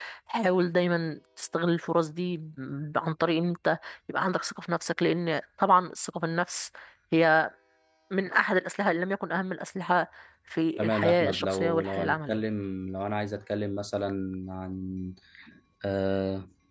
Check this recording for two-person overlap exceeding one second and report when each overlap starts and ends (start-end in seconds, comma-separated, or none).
10.8-12.4